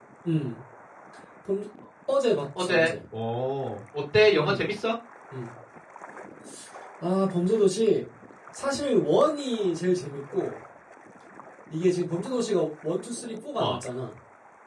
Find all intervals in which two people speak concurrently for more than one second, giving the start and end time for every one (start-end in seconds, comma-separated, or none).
none